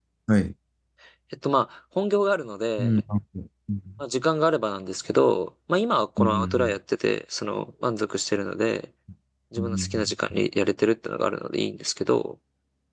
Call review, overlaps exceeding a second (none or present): none